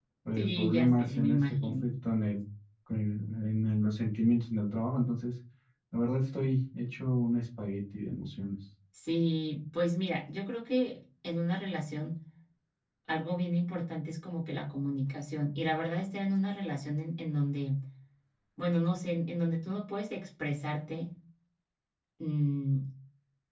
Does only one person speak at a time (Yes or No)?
No